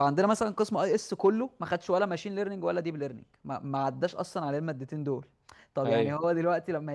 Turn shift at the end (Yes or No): No